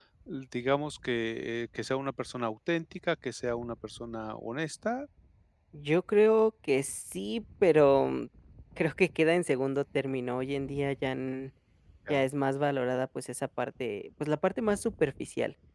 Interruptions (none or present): none